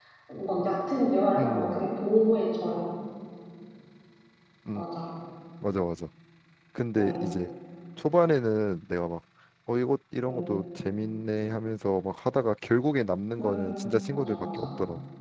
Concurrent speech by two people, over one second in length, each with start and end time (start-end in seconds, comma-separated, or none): 13.4-14.7